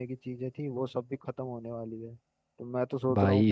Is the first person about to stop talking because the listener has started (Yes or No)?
No